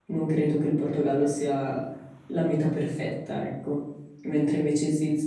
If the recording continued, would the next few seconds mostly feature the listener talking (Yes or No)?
No